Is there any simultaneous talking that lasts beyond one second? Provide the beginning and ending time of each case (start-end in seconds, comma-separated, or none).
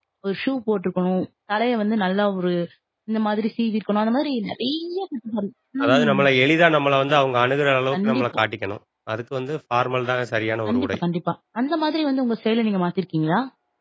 none